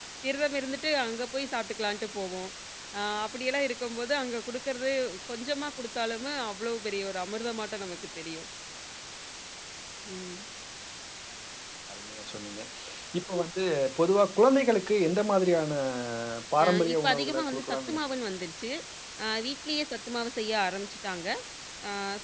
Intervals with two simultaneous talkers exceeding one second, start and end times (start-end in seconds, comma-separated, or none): 16.6-18.0